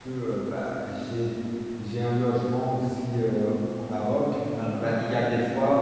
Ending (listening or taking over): listening